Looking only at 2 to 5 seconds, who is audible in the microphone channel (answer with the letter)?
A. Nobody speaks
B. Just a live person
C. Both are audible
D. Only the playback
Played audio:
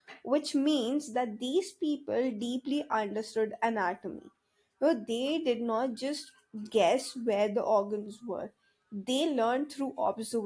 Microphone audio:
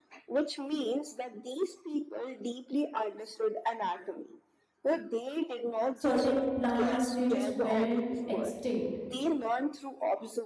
D